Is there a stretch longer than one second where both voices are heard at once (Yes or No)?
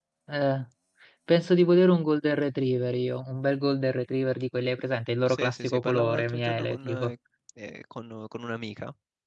Yes